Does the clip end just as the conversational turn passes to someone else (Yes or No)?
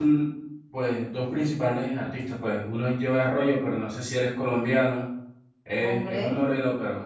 No